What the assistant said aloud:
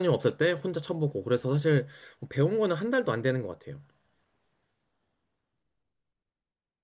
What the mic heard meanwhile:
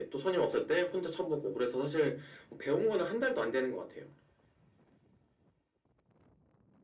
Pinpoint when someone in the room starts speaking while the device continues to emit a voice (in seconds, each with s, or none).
none